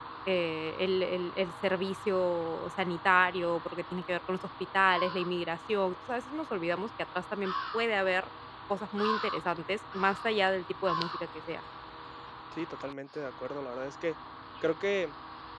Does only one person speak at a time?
Yes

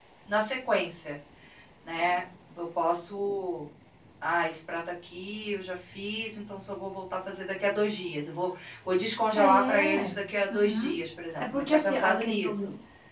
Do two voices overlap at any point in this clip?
Yes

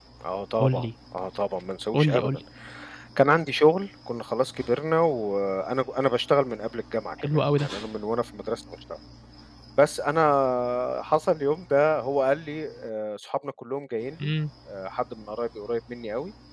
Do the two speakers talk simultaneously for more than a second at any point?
No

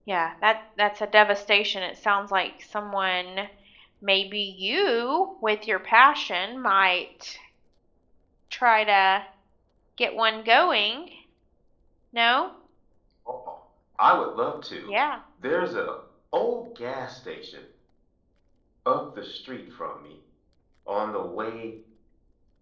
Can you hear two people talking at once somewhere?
No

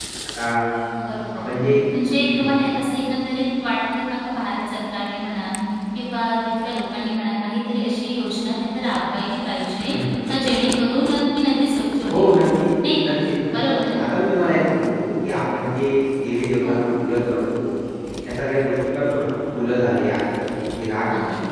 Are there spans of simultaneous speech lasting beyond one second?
No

